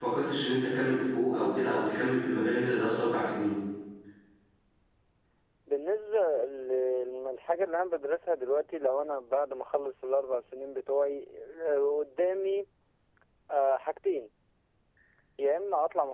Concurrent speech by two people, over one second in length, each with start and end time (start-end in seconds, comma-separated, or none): none